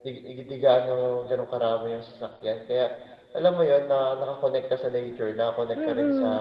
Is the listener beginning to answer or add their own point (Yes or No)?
Yes